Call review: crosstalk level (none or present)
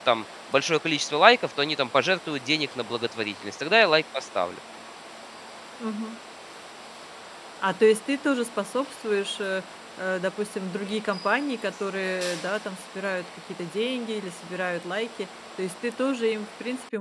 none